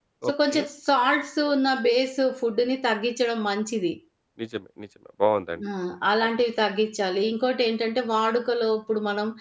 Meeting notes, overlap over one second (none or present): none